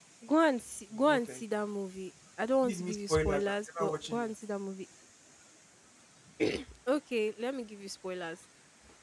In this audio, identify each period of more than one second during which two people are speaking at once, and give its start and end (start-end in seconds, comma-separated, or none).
2.6-4.3